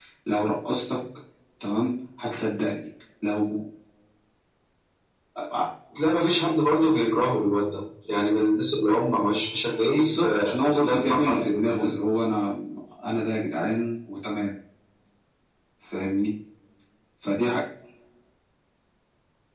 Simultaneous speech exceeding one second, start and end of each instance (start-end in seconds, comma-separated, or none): 9.9-12.1